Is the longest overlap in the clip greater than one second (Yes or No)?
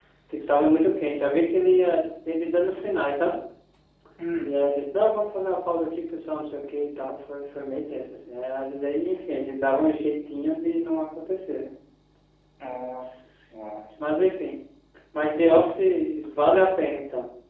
No